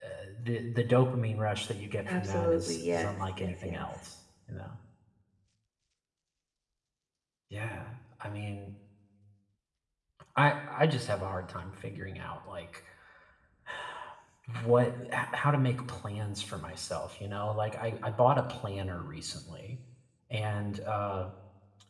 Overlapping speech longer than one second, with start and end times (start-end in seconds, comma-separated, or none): 2.1-3.9